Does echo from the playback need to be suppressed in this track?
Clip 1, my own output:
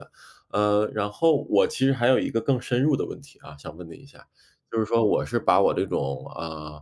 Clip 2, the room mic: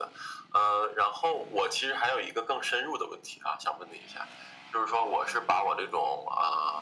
Yes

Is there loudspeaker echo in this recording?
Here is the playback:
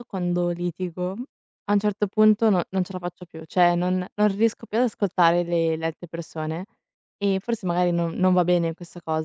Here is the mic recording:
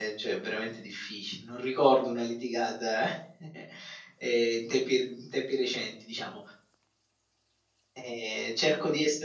No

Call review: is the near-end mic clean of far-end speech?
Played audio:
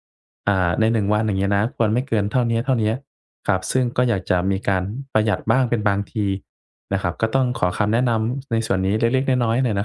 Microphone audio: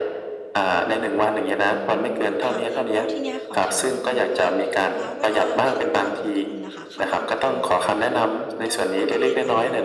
No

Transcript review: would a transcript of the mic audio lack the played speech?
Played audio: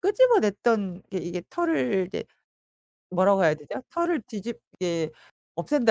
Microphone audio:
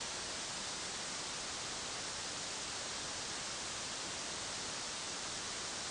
Yes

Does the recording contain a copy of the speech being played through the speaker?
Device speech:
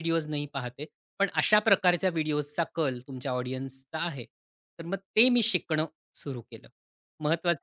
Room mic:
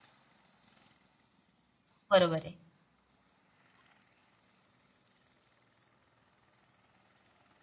No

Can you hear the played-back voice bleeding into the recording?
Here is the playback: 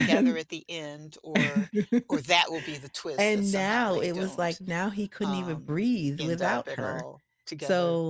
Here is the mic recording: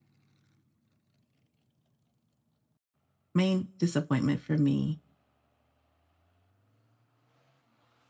No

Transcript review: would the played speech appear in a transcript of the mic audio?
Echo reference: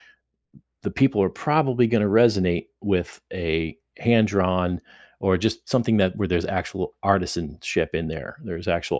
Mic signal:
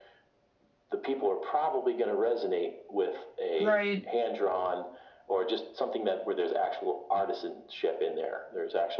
Yes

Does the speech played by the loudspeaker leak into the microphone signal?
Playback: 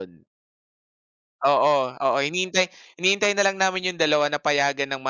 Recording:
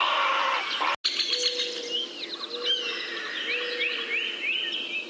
No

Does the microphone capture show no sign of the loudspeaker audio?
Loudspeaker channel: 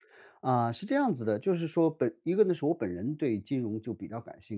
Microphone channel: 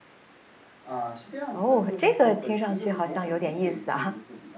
No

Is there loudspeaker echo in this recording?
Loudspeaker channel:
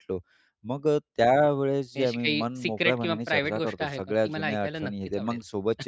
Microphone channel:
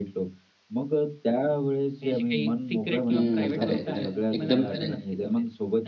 Yes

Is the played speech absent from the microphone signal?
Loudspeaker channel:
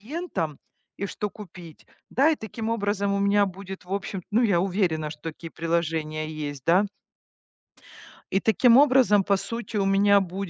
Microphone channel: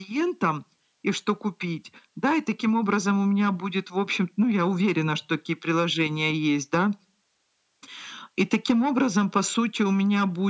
No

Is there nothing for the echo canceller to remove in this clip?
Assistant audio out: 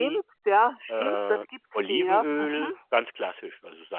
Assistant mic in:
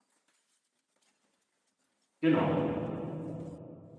Yes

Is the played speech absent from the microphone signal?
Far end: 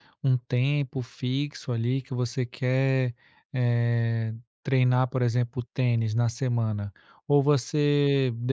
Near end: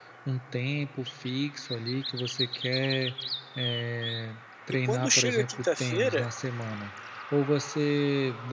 No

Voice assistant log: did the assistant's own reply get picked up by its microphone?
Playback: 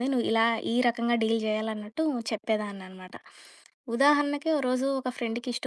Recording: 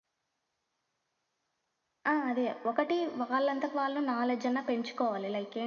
No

